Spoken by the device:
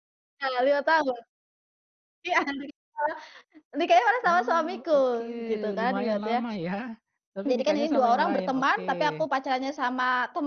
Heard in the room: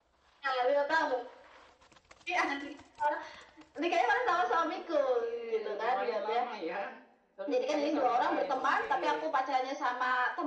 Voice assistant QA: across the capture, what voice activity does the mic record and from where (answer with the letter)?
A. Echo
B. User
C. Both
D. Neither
A